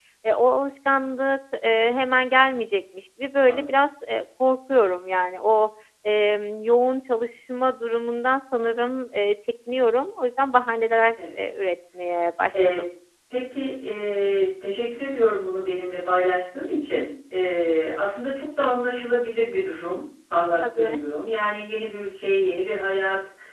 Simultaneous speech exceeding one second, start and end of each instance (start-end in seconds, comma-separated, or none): none